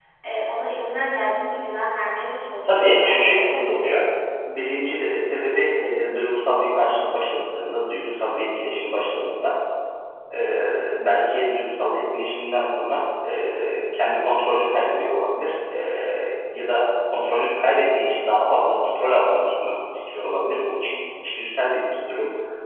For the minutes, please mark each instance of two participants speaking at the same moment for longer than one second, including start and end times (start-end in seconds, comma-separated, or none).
2.6-3.9